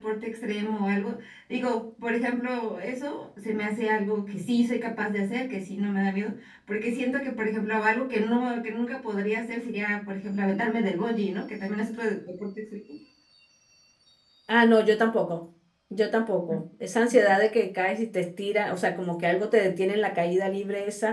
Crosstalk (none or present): none